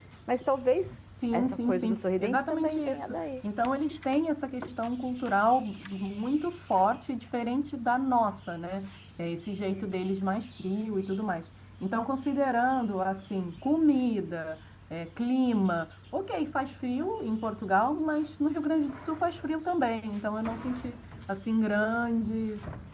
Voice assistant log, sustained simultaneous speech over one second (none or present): present